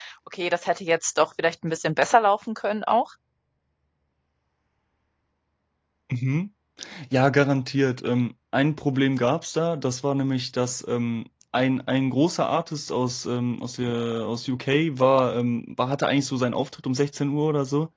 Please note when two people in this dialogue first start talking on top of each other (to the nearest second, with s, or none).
none